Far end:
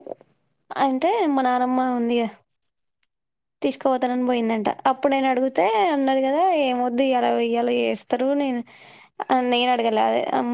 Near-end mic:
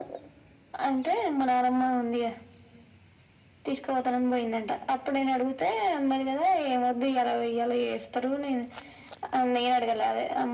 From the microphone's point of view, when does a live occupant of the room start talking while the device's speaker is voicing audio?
none

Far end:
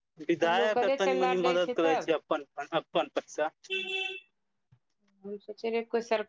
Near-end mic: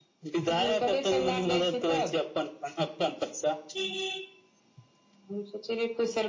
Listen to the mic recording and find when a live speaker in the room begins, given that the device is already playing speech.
none

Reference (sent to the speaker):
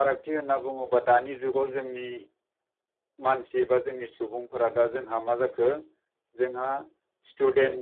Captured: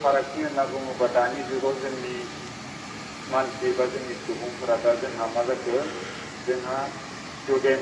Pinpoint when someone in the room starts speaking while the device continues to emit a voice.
none

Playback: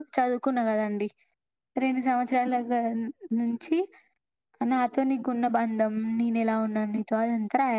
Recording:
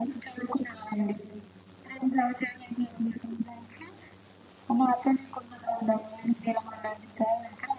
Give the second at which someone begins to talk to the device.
none

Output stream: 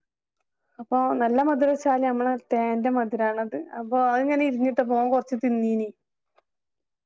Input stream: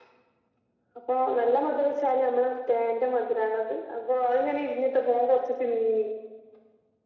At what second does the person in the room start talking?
none

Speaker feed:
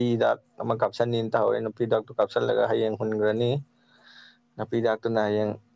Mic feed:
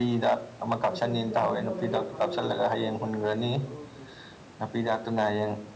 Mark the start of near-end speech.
0.9 s

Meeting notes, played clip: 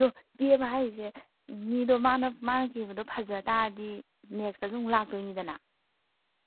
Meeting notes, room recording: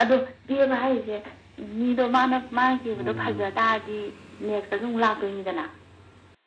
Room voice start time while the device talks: 2.9 s

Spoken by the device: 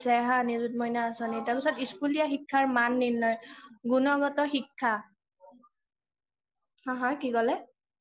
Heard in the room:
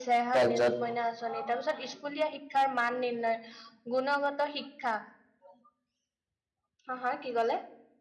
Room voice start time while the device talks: 0.4 s

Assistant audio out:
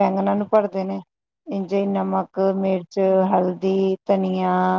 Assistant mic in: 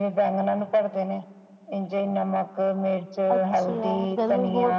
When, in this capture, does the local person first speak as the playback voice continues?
3.3 s

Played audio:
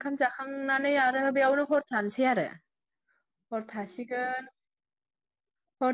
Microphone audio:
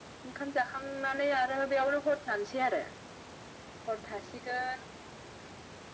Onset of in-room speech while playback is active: none

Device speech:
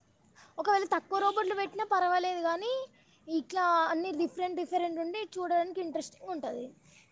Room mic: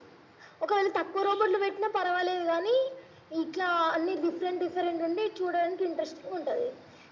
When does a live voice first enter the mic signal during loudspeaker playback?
none

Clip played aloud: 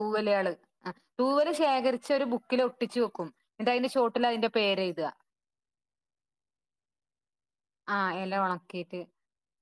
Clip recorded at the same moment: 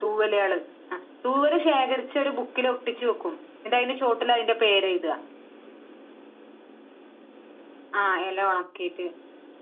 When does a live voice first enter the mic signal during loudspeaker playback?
none

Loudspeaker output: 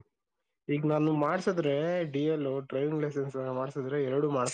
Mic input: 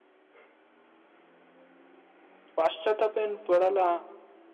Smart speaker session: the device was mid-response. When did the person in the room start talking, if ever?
2.6 s

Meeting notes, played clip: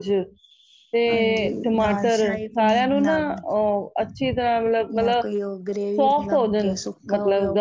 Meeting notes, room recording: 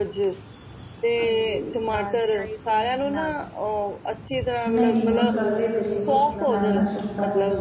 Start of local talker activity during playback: 4.7 s

